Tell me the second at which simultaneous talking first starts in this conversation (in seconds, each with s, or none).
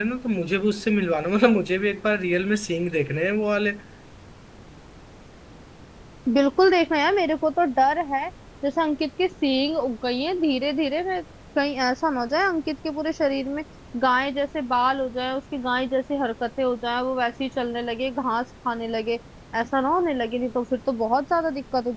none